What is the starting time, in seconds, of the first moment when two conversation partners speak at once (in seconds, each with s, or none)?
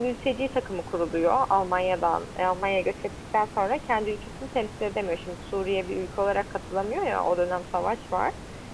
none